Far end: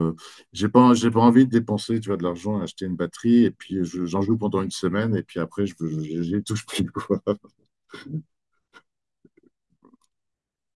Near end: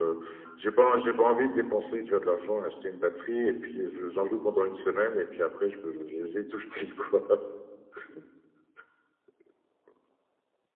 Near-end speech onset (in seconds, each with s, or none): none